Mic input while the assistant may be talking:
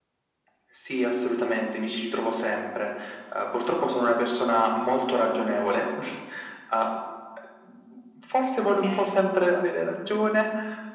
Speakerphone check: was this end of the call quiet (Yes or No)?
No